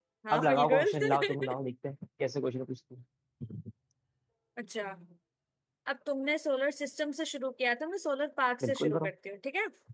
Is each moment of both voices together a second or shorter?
No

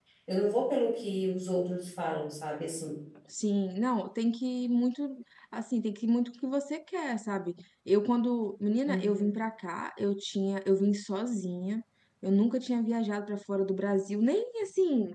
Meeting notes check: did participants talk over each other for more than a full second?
No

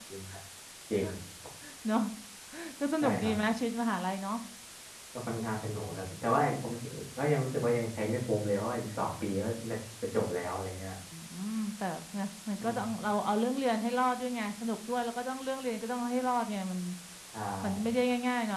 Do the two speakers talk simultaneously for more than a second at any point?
No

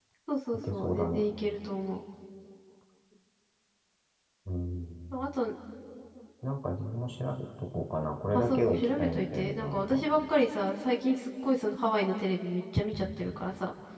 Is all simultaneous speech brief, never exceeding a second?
No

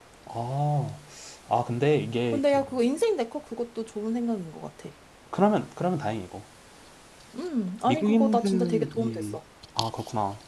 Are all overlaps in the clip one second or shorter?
No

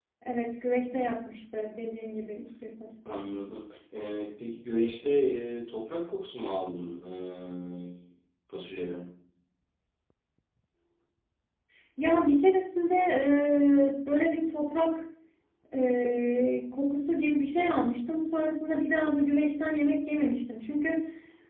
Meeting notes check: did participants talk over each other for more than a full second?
No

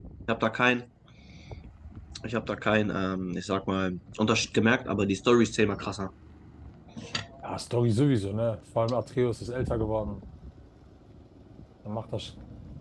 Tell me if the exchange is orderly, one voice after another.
Yes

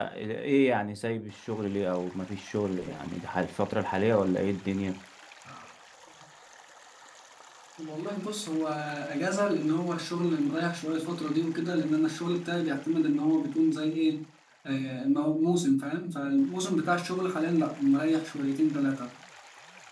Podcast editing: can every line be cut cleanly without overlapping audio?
Yes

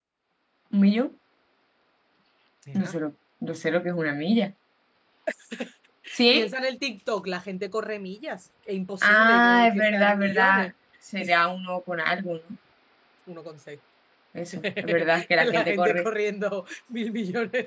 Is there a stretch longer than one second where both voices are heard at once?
Yes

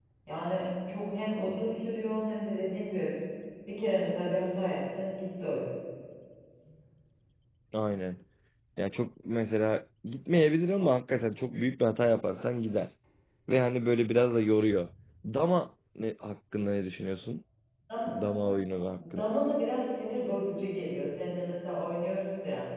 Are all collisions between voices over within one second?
Yes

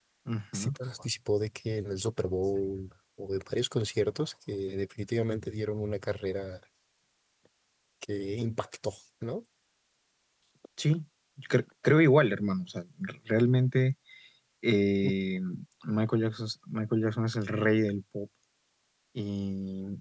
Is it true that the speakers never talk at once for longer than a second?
Yes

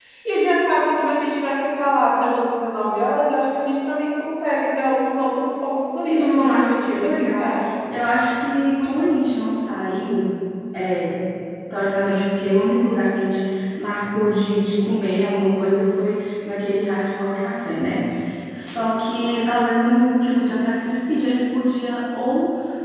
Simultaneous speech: Yes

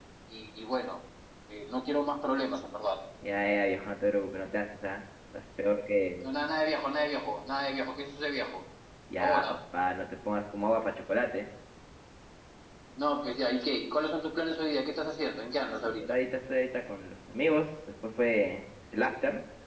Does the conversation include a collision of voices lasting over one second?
No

